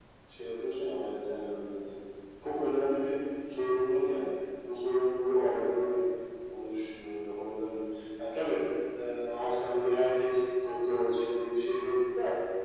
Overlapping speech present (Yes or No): No